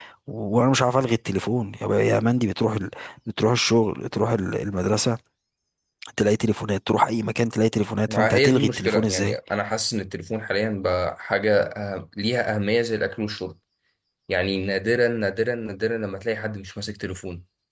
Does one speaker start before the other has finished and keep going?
Yes, from 8.1 s

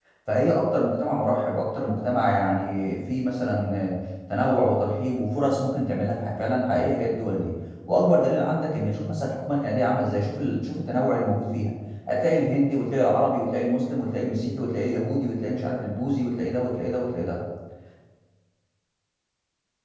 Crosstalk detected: No

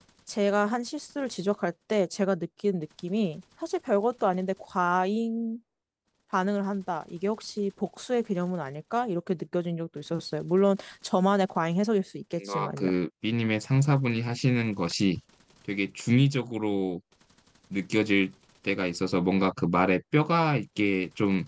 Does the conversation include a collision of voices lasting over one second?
No

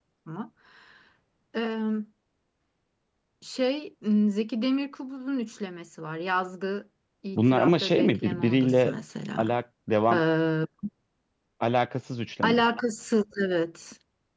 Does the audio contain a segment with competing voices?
Yes, from 7.3 s

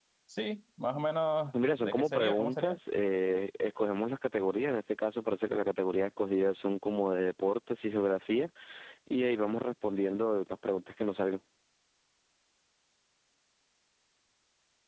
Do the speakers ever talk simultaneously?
Yes, from 1.5 s

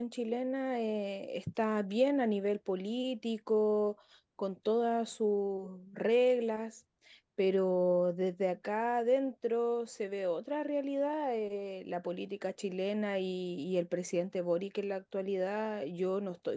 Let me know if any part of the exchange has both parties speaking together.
No

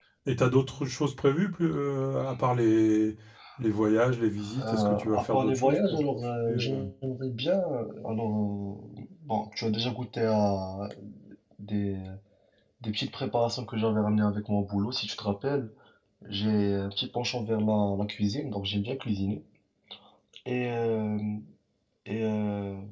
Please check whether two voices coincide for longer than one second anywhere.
Yes, from 4.5 s

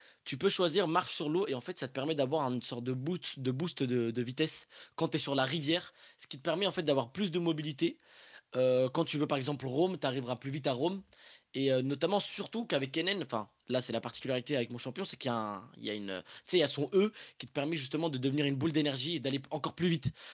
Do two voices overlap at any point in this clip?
No

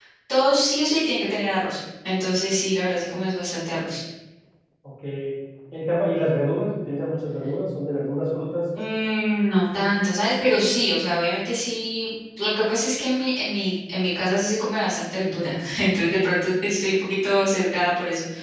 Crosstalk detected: No

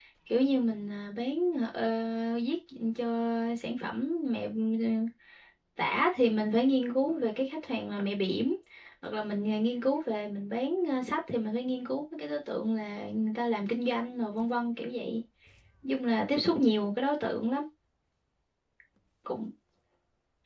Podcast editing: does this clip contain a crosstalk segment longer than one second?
No

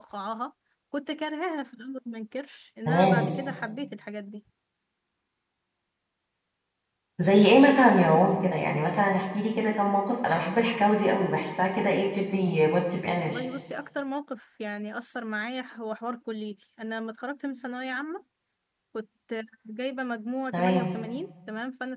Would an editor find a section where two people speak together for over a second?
No

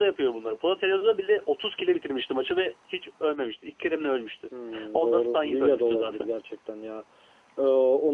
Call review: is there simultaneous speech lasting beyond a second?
Yes, from 4.9 s

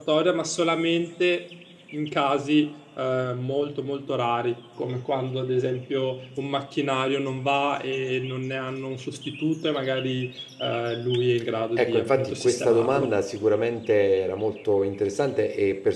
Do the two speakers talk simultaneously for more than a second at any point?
Yes, from 11.8 s

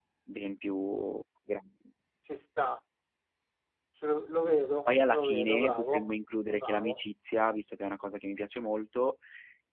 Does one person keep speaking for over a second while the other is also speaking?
Yes, from 4.8 s

